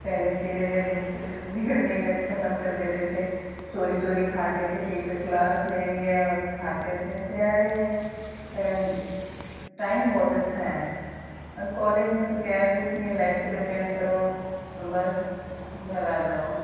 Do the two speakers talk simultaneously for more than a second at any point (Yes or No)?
No